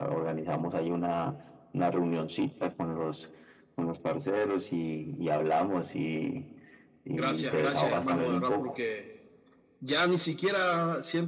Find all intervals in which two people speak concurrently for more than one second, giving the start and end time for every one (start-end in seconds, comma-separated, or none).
7.2-8.7